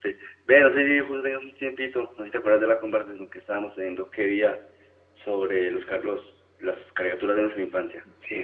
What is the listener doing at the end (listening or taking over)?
taking over